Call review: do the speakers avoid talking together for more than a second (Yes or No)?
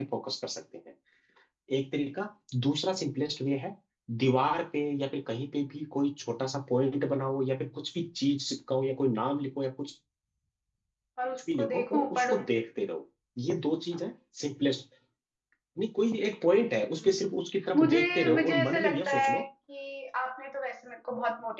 No